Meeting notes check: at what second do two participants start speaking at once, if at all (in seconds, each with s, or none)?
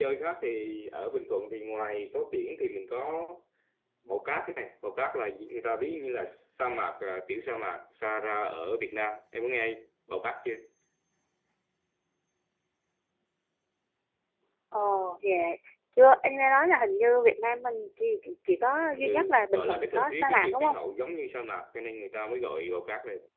19.0 s